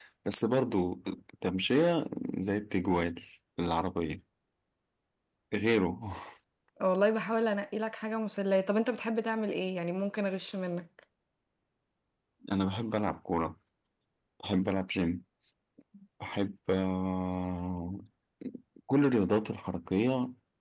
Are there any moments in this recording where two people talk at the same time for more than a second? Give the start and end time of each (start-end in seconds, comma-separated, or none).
none